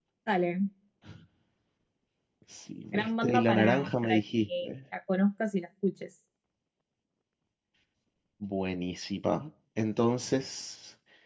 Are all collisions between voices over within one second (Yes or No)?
No